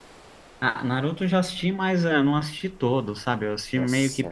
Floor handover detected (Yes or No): Yes